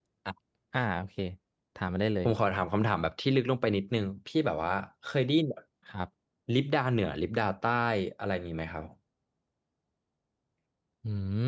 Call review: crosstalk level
none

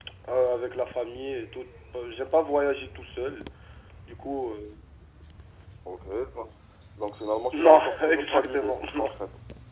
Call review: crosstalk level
present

